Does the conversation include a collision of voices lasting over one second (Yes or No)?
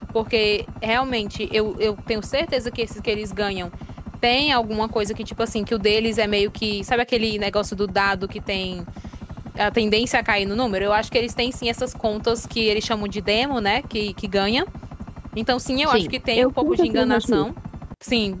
Yes